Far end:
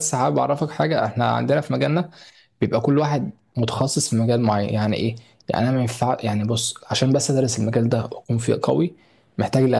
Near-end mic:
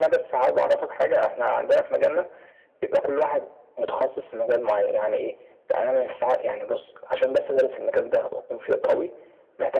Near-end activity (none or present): none